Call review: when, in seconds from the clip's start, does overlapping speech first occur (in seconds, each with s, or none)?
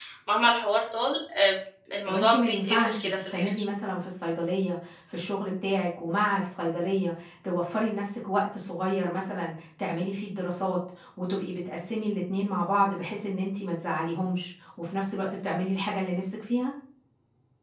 2.1 s